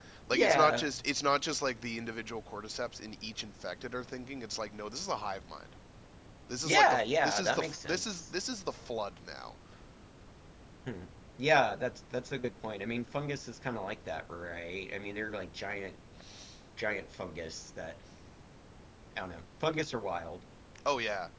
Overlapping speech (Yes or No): Yes